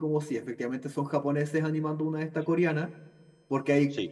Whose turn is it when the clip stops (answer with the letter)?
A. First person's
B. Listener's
A